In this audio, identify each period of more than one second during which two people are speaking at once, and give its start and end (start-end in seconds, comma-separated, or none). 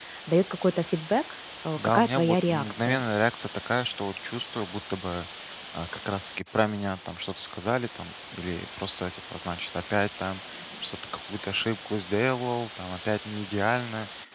1.8-3.0